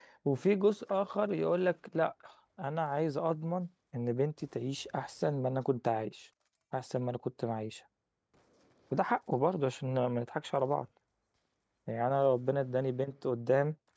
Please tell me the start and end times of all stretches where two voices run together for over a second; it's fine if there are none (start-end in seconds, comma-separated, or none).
none